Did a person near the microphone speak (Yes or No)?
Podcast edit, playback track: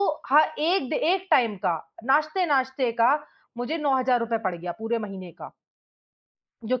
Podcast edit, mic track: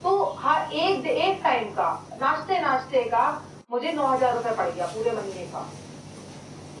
No